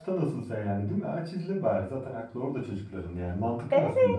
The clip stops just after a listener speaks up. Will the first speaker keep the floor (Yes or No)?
No